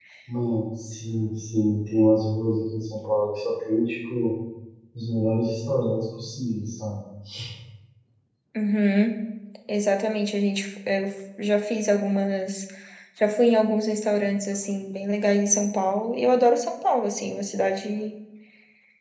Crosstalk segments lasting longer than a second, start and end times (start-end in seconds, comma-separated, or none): none